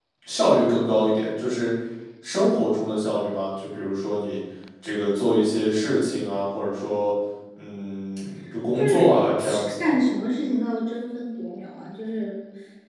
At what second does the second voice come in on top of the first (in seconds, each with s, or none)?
8.8 s